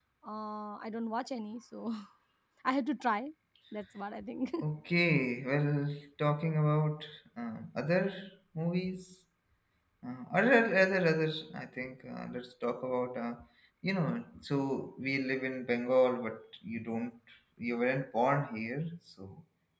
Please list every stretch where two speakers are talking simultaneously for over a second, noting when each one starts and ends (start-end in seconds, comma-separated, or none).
none